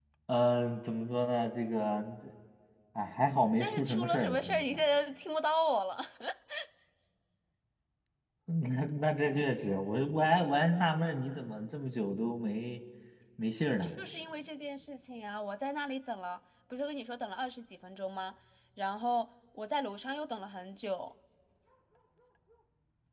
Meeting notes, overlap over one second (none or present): present